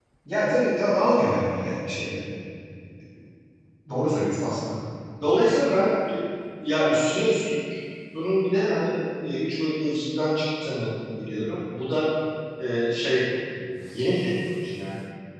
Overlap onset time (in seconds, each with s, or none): none